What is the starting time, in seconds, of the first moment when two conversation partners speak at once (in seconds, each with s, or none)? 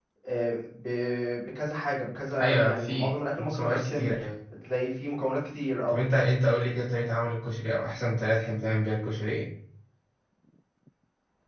2.4 s